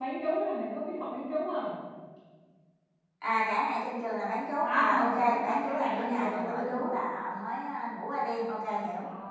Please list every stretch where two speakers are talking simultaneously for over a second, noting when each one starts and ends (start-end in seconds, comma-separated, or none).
4.6-6.9